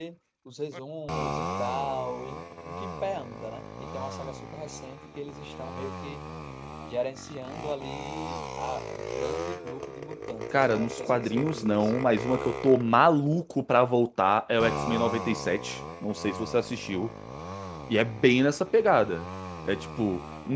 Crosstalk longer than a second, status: present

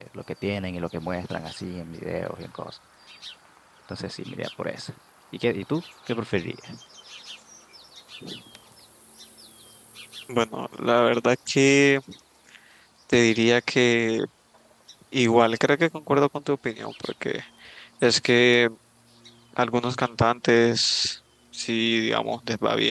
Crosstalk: none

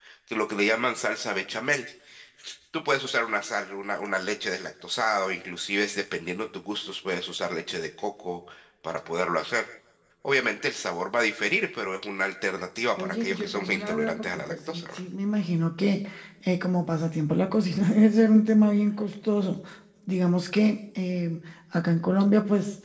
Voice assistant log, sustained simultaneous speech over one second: present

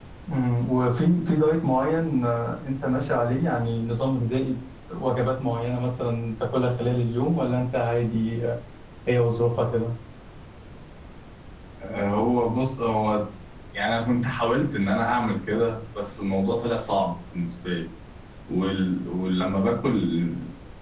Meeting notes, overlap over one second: none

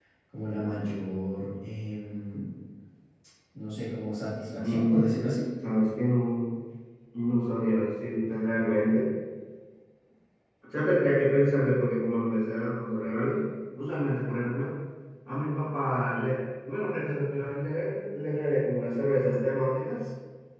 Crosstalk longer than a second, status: none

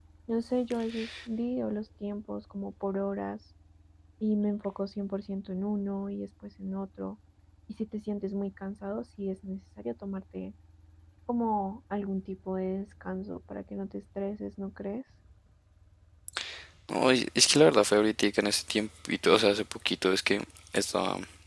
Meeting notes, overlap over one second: none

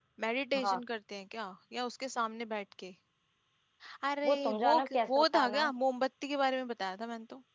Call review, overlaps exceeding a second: present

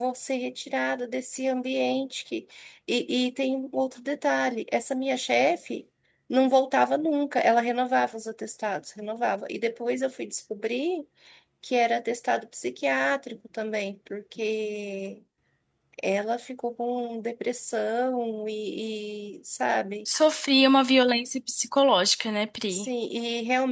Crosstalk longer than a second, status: none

